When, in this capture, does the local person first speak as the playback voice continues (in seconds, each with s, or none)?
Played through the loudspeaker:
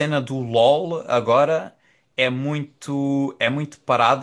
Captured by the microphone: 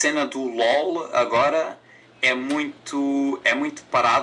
none